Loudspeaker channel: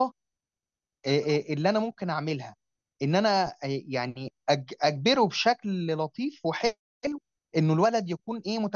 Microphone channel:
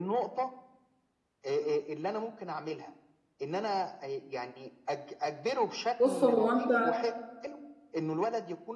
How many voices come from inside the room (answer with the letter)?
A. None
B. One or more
B